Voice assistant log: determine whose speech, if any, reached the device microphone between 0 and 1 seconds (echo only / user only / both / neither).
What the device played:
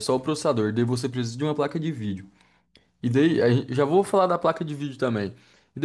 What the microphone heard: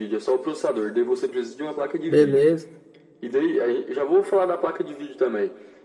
echo only